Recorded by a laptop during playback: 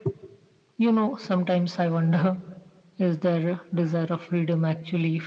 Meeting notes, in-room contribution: none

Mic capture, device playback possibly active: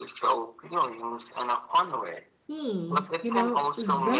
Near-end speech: present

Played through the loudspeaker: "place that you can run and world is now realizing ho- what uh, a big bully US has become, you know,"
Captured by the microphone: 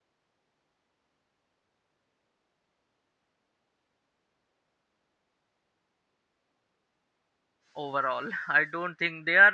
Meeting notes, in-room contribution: present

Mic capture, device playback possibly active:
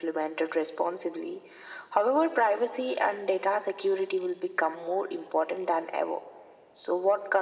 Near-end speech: none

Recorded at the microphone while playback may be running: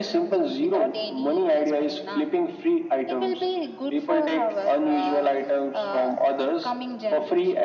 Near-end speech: none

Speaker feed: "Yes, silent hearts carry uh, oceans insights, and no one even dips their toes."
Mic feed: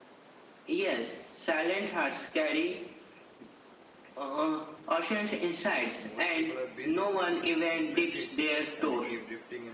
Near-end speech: present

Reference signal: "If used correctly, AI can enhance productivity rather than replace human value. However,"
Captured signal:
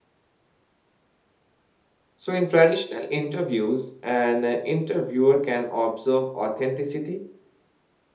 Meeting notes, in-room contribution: present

